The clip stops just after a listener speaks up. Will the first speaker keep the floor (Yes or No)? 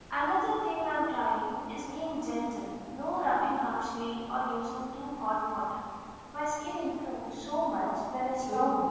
No